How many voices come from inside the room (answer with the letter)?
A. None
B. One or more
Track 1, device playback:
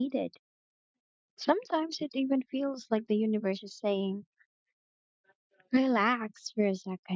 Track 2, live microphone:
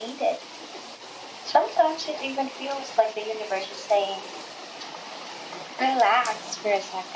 A